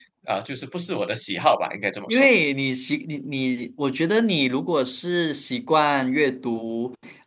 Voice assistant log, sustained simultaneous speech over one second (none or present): none